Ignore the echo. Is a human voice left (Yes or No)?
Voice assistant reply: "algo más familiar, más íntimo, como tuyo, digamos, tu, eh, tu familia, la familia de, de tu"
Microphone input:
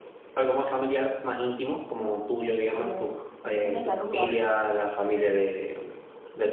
Yes